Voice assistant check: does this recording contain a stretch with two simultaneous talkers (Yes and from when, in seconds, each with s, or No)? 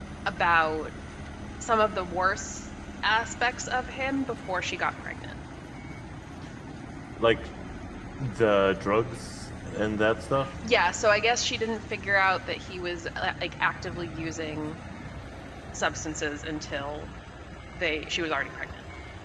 No